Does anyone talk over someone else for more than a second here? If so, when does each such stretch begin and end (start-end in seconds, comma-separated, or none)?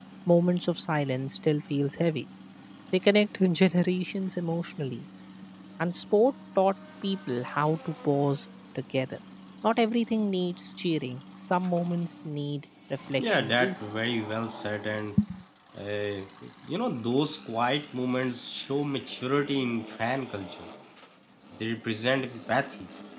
none